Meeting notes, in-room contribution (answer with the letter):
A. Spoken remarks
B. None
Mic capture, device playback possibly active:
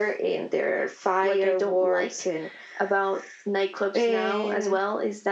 B